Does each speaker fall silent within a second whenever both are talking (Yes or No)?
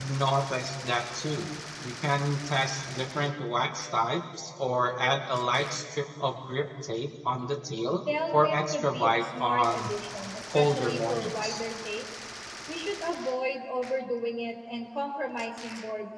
No